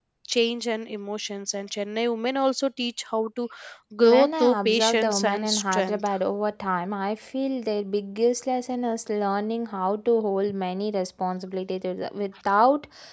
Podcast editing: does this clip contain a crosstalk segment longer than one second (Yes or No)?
Yes